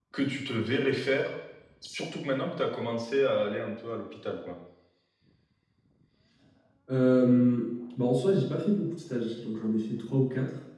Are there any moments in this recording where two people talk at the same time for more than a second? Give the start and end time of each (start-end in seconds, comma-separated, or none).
none